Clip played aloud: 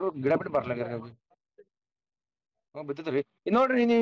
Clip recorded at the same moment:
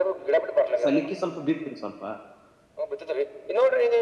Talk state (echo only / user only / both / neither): both